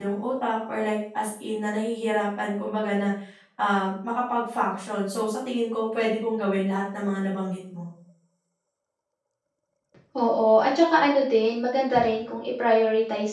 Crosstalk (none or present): none